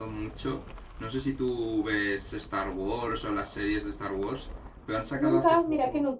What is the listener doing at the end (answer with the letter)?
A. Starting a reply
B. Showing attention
A